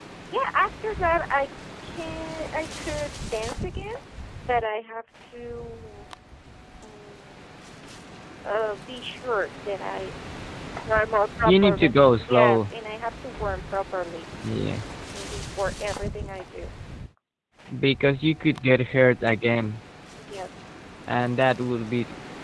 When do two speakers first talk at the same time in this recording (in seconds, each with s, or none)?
11.4 s